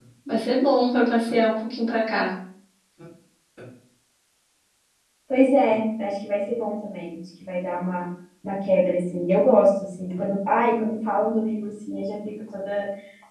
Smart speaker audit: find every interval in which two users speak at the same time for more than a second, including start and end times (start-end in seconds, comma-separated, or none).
none